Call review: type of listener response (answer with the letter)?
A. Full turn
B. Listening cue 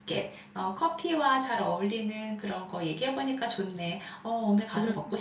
A